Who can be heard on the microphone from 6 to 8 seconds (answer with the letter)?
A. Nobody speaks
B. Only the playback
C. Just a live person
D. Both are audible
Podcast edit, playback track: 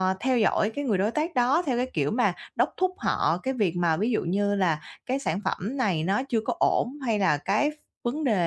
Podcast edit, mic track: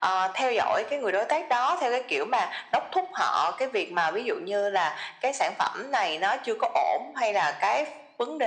B